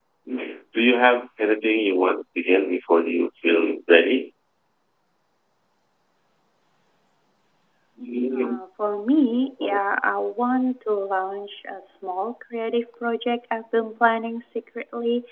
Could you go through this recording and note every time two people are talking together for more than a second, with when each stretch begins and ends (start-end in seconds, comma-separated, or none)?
none